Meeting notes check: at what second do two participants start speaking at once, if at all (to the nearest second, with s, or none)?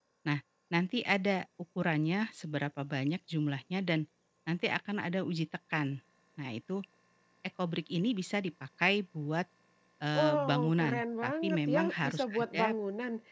10 s